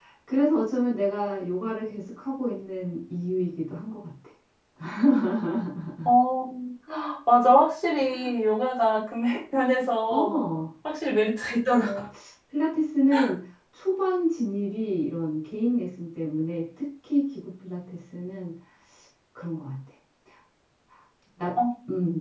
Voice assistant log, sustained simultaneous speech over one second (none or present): none